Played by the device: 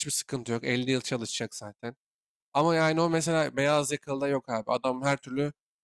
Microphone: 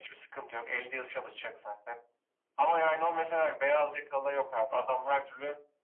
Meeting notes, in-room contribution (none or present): none